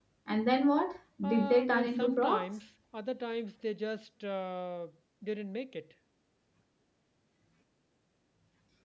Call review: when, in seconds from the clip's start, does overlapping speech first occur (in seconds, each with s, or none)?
1.2 s